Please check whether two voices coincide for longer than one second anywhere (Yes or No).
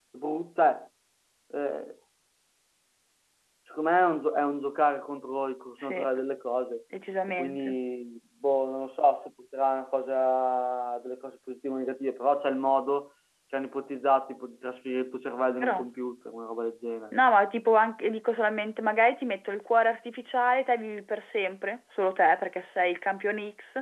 No